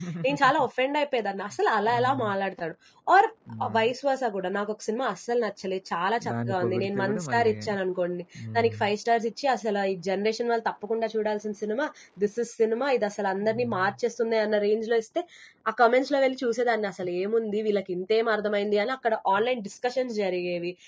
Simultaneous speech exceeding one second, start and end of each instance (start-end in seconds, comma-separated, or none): 6.3-7.5